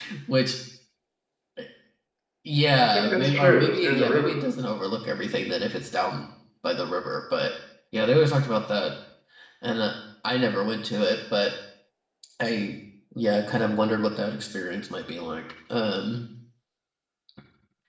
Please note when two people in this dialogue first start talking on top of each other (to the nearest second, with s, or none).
3 s